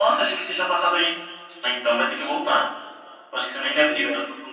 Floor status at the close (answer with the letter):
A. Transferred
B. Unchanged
B